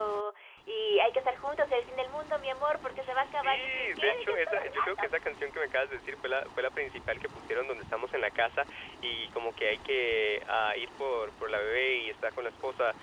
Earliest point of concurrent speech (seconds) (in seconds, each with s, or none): 3.0 s